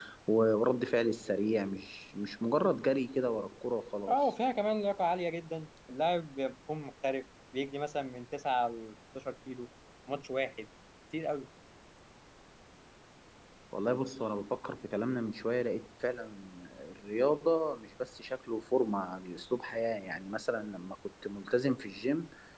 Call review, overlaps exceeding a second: none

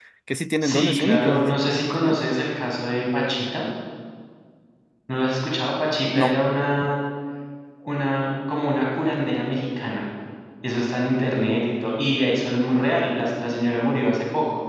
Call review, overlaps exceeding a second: present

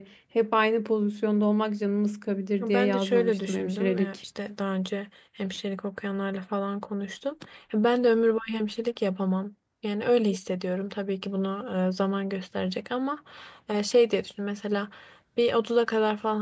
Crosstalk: present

